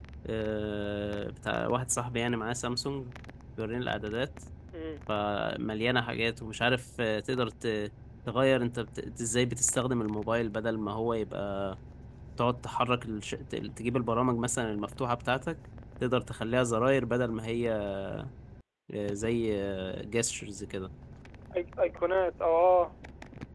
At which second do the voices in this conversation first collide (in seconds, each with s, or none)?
none